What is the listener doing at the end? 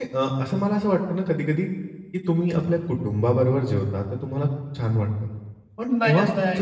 listening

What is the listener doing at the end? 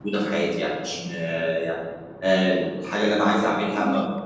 listening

